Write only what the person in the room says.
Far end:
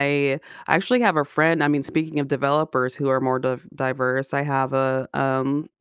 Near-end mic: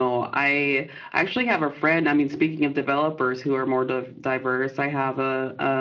none

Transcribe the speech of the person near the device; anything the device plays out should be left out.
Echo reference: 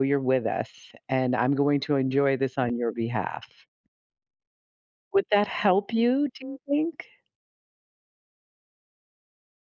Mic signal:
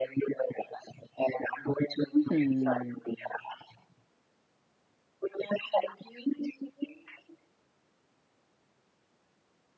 Mhm.

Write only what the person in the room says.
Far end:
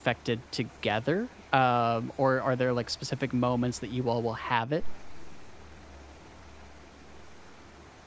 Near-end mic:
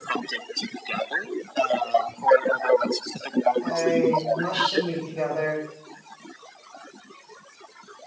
I mushed some meat together."

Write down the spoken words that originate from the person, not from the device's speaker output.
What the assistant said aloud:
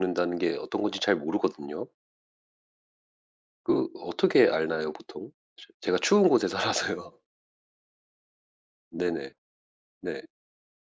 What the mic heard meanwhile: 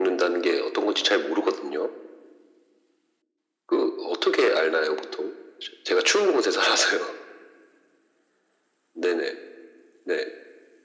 none

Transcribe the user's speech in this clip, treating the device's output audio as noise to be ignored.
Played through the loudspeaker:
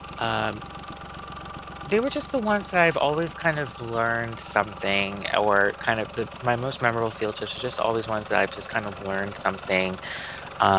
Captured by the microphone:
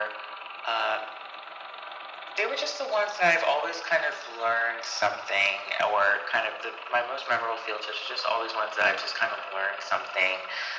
none

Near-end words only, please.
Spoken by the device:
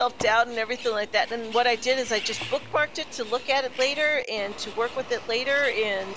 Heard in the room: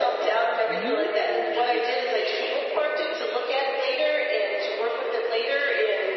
Yeah.

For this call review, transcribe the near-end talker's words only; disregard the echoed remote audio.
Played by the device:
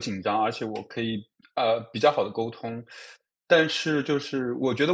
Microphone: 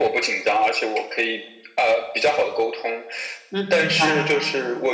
嗯，明白，

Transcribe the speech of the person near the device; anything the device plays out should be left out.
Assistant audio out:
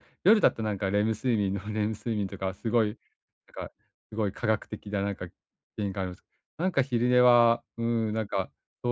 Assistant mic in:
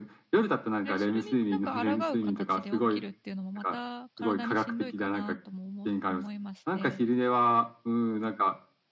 え、それになんか抗う形で起きるっていうのも、また体にしんどいかなともおも思いまして。

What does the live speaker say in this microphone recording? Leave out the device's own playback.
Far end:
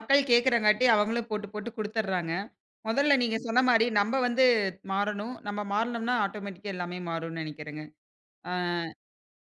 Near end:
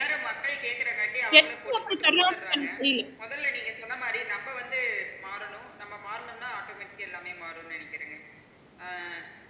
எதுக்கு அப்படி தர்றாங்கன்னு எனக்கு தெரியல.

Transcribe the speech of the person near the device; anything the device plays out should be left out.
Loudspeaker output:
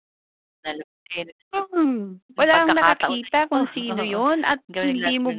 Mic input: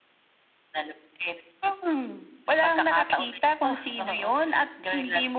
none

